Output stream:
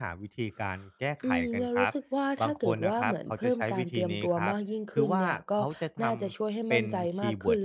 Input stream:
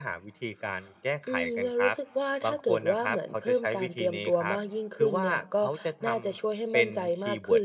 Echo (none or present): present